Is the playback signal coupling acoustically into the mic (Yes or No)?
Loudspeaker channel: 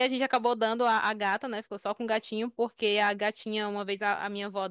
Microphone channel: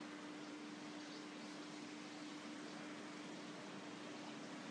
No